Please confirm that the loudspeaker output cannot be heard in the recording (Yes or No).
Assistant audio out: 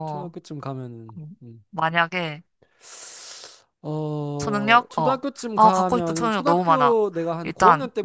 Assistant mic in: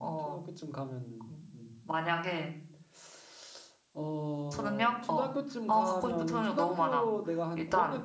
No